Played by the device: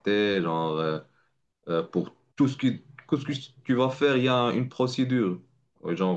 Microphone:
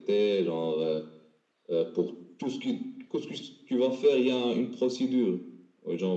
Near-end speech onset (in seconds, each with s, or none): none